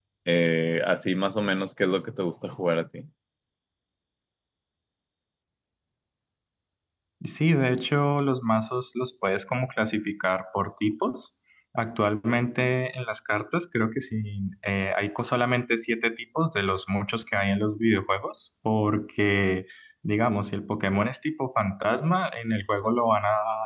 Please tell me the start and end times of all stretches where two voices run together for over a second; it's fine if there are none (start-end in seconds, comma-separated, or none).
none